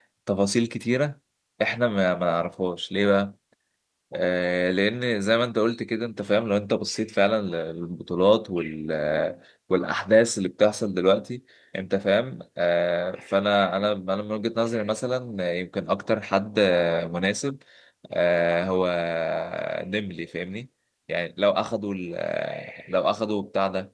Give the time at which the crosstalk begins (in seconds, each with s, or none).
none